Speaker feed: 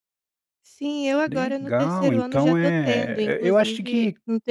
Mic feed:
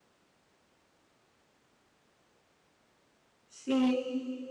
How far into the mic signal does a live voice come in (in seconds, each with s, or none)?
3.5 s